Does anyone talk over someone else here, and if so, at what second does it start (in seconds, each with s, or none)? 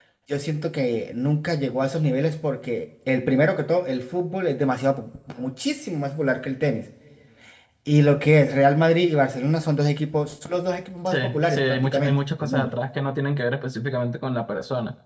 11.1 s